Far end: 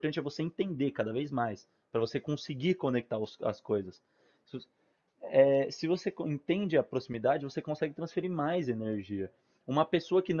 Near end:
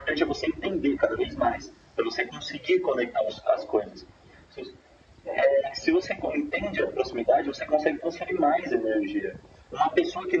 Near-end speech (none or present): none